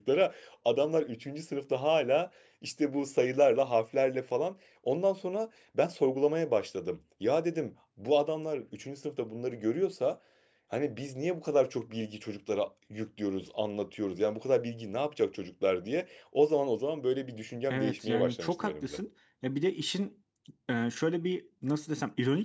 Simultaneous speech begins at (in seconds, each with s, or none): 17.7 s